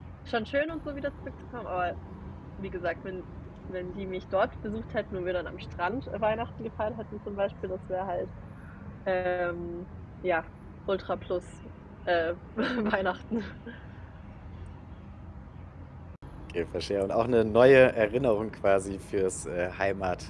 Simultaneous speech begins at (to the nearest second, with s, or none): none